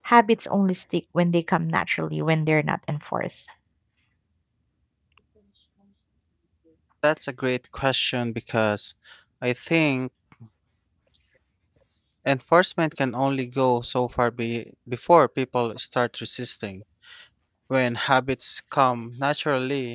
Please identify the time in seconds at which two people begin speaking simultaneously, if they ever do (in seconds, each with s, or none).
none